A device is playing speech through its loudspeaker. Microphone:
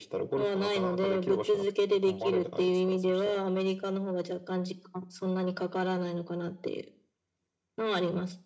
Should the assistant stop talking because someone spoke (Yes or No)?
No